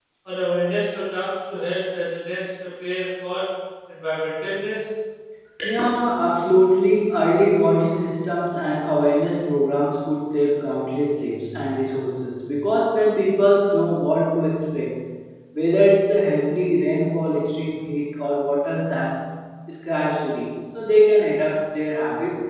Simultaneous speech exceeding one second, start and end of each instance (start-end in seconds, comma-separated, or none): none